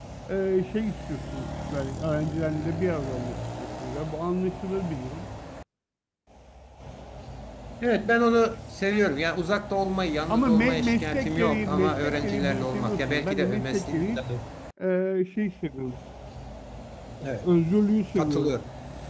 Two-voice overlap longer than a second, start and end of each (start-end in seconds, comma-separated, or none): 10.3-14.2